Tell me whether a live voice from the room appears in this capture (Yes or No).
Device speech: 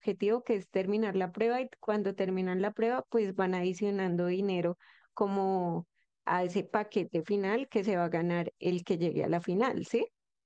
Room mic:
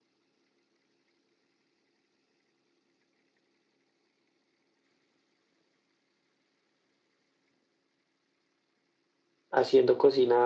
Yes